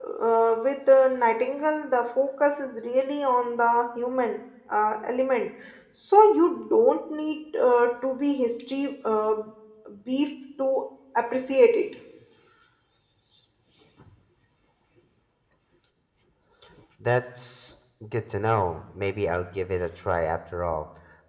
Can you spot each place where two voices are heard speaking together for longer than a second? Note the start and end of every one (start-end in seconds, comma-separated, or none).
none